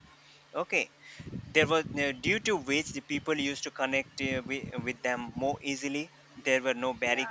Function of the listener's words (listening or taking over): listening